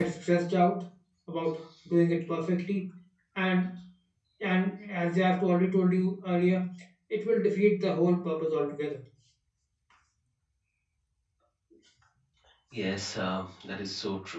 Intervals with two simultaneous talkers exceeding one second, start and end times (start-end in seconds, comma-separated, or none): none